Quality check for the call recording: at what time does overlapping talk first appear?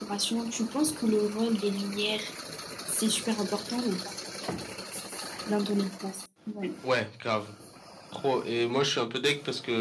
none

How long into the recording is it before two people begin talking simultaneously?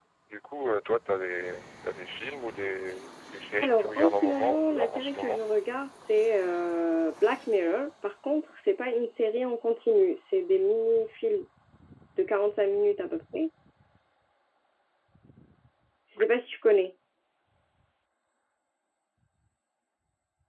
3.6 s

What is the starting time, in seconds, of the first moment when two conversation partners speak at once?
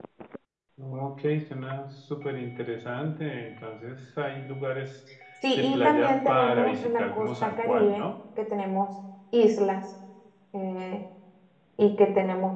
5.6 s

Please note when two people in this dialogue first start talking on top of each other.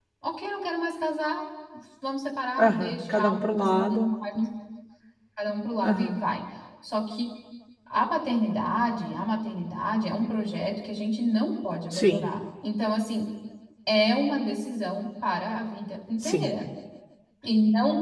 2.6 s

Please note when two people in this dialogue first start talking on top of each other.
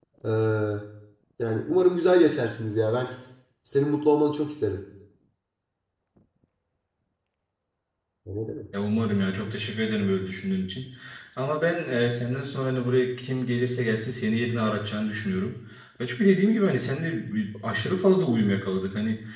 none

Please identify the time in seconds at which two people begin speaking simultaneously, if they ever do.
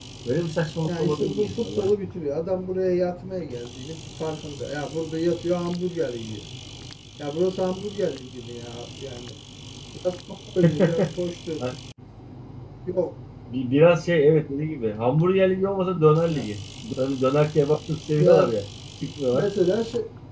0.9 s

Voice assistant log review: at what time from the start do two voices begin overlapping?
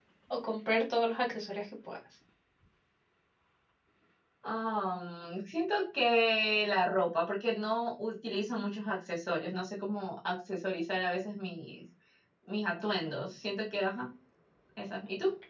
none

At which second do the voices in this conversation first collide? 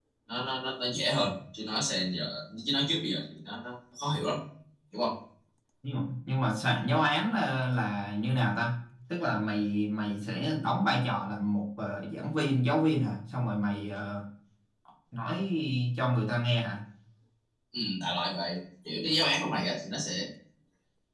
none

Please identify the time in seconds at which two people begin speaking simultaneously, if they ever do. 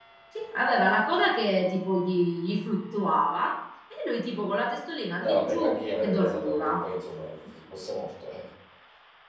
5.2 s

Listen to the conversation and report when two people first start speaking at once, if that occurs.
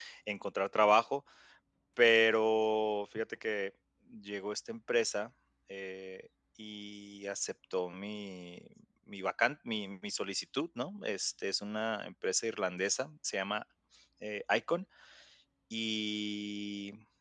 none

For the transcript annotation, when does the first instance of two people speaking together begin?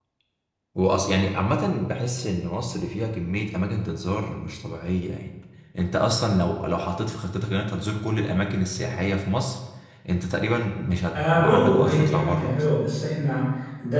11.1 s

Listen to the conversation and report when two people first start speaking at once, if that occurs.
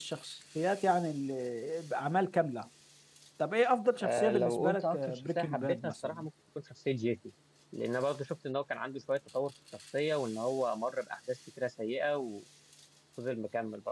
4.0 s

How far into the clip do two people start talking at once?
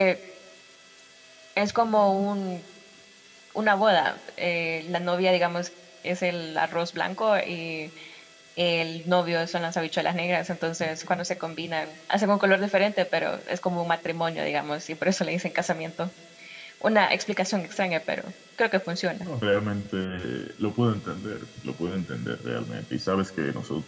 none

